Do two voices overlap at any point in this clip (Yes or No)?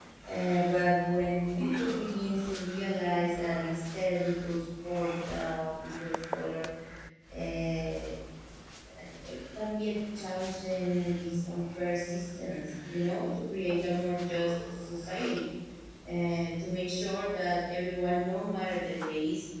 No